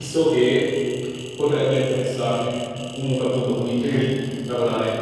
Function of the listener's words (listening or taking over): listening